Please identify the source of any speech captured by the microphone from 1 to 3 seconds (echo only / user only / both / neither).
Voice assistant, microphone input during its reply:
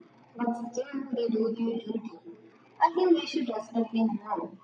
echo only